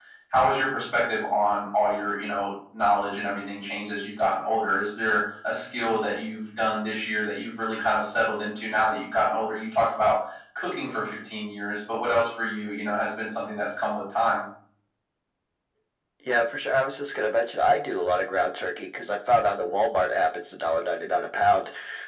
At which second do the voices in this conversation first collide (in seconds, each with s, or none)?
none